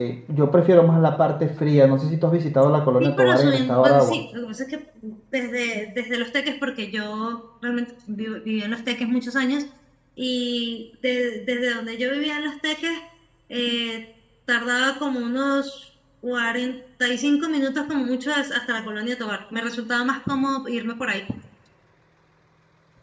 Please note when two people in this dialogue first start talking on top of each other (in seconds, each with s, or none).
3.0 s